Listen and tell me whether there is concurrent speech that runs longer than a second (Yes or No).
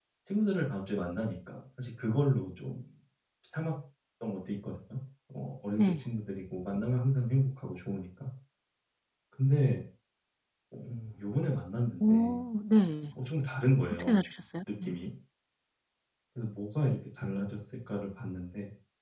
No